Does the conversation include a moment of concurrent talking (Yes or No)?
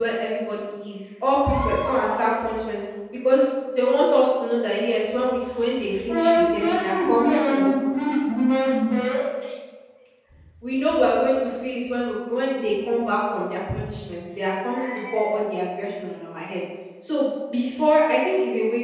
Yes